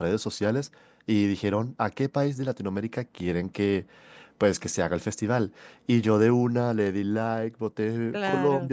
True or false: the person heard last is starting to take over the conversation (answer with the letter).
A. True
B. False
B